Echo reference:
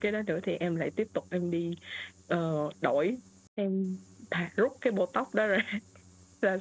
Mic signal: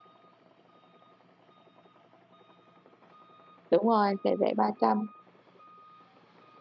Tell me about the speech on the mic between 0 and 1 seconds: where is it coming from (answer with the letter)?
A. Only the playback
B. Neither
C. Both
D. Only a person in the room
B